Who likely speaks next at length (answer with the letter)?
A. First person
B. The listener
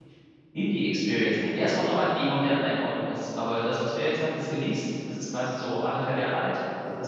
A